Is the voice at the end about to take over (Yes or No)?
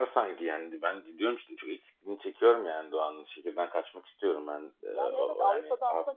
Yes